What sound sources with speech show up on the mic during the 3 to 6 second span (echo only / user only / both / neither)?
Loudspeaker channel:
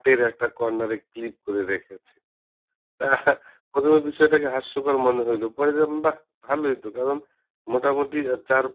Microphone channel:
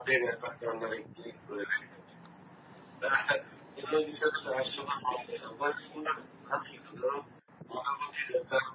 echo only